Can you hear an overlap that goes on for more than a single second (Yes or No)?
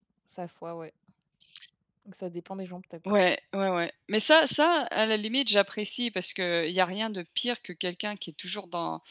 No